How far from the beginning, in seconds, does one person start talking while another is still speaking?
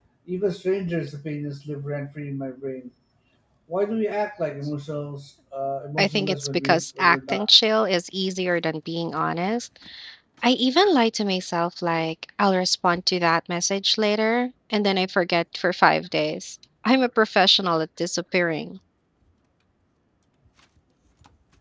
6.0 s

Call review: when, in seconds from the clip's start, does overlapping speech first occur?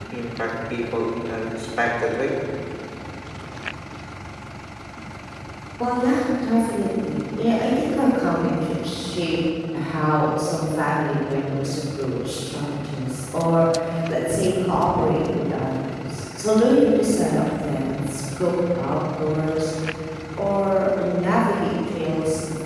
none

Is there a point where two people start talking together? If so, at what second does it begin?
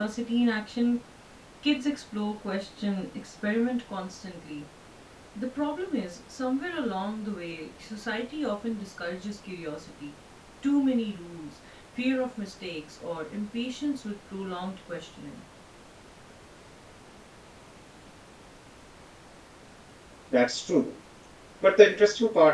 none

